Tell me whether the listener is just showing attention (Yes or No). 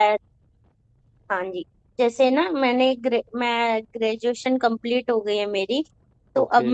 Yes